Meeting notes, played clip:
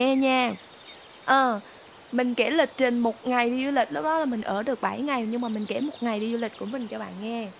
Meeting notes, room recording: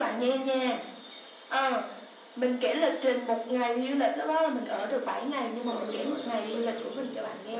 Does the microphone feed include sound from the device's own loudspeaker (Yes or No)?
Yes